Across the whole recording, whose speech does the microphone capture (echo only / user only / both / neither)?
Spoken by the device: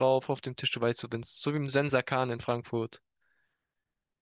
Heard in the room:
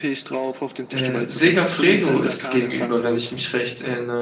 both